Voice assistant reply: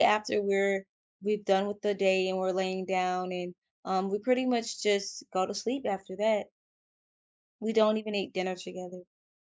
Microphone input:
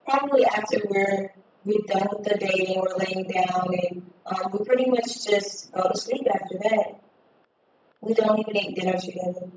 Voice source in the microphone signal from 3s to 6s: echo only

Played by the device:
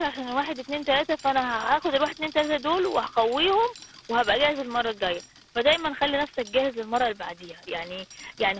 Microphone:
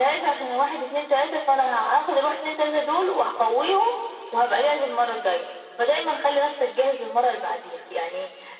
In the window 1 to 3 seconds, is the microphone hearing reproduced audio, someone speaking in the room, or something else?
echo only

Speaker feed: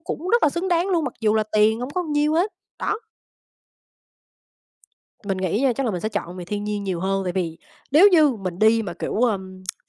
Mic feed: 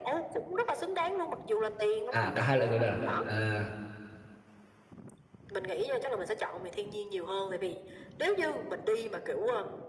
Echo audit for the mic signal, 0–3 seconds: both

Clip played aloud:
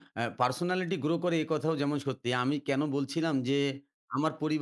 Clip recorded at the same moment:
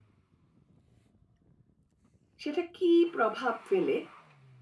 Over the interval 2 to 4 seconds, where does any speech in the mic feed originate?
user only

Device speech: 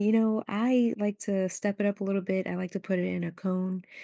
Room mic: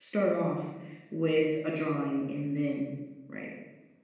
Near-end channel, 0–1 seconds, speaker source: user only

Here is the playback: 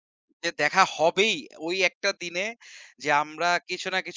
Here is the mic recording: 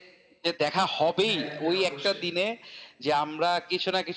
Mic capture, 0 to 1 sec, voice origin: echo only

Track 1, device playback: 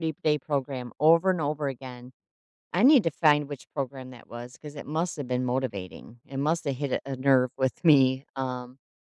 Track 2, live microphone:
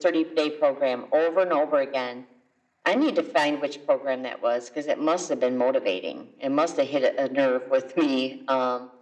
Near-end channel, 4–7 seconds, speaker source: echo only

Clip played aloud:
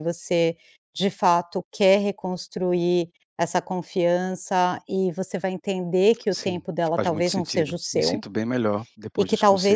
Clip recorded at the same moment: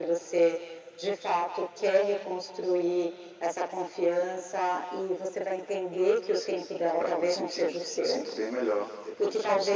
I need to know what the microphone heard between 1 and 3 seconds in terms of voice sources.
echo only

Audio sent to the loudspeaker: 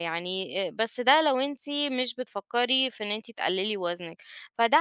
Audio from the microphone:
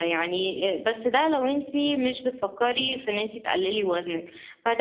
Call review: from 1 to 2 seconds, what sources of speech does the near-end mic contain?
echo only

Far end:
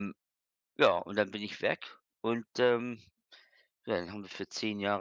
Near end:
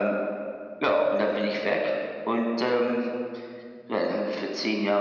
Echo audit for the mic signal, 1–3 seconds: echo only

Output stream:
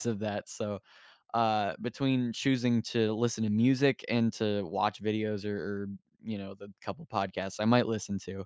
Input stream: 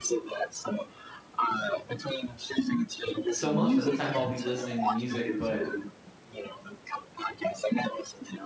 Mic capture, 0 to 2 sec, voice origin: echo only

